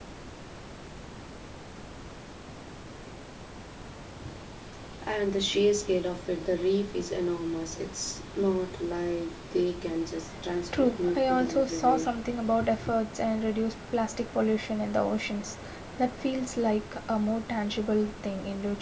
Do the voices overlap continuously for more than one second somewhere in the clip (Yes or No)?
Yes